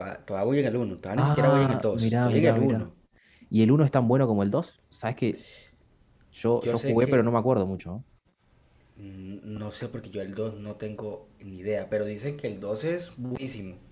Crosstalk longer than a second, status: present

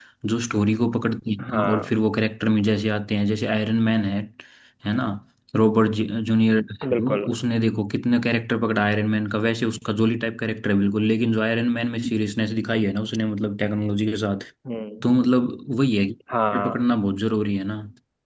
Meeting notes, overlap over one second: none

